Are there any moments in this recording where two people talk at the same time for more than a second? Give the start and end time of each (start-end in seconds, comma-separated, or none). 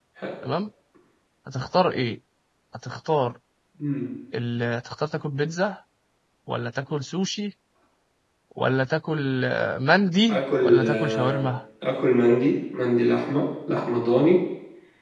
10.3-11.5